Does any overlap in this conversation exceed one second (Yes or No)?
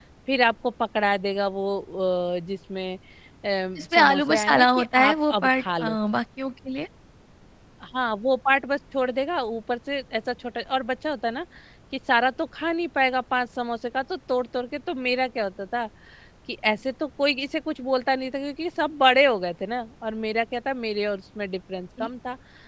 Yes